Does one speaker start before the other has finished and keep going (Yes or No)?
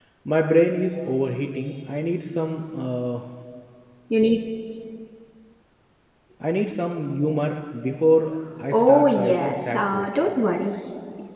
Yes